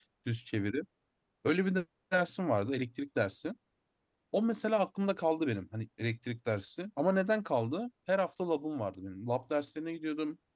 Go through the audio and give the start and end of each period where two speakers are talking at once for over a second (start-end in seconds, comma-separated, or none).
none